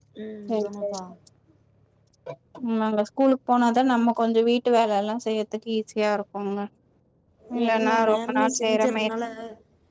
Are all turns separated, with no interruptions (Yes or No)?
No